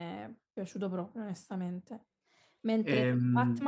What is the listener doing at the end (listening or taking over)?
listening